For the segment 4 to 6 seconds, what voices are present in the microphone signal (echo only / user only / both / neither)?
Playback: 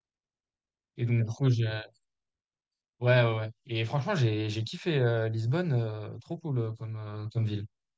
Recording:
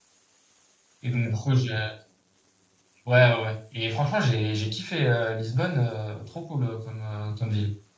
echo only